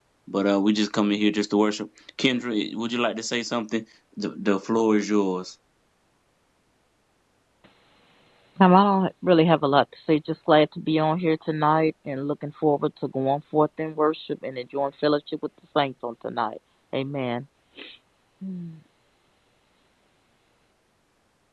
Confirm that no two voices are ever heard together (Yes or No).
Yes